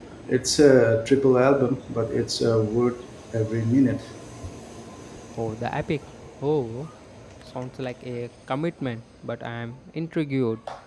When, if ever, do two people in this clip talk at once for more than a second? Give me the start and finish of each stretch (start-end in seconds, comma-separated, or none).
none